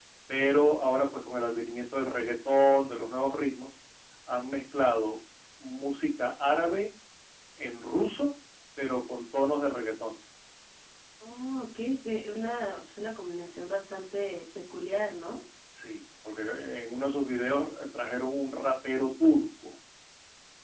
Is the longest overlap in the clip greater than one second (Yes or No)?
No